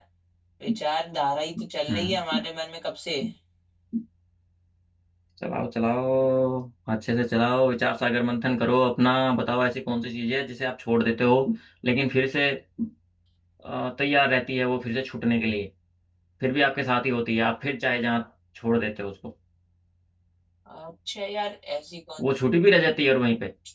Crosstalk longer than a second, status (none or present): none